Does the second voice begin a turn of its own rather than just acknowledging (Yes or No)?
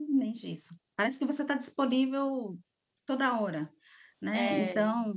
No